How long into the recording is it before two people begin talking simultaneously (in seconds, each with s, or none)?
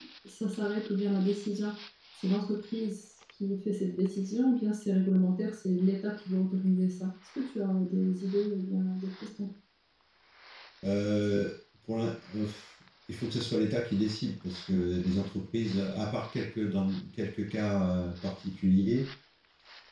none